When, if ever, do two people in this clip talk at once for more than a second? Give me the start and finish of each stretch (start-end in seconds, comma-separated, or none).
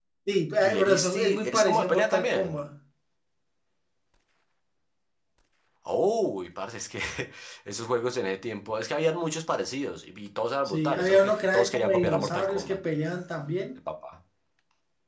0.6-2.6, 10.7-12.8